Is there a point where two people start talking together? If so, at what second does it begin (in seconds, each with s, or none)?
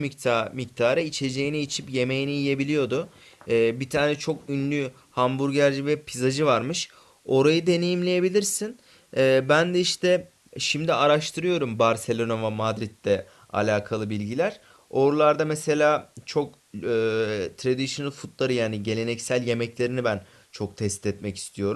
none